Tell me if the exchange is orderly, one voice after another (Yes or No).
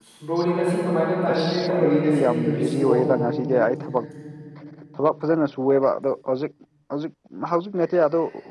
No